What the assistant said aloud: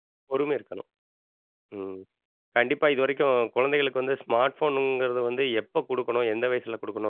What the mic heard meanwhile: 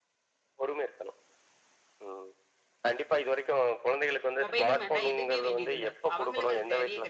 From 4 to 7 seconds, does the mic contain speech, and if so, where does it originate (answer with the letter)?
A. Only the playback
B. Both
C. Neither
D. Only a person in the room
B